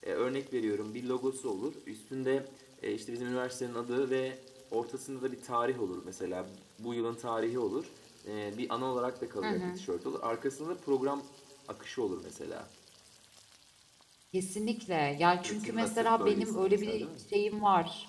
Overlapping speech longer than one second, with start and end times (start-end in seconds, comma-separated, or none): 15.4-17.1